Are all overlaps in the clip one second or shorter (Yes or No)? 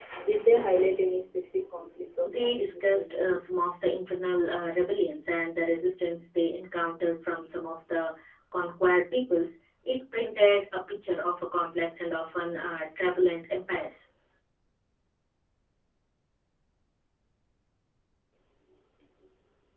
No